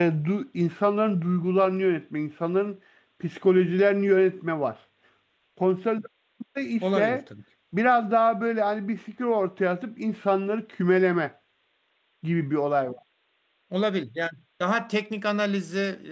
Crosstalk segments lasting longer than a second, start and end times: none

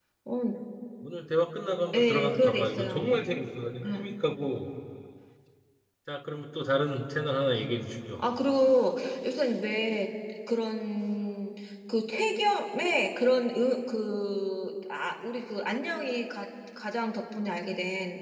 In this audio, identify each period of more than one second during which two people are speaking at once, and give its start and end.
1.9-3.1

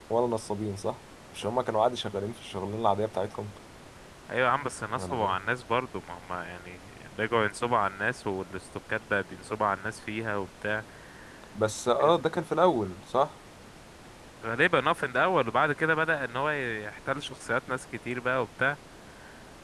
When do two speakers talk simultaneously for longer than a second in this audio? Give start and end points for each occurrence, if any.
none

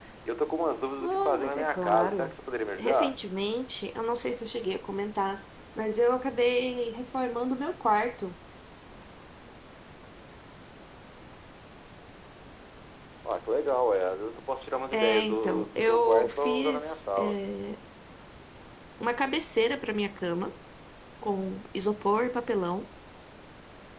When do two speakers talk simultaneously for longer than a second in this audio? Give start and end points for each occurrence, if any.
1.0-2.3, 14.9-17.4

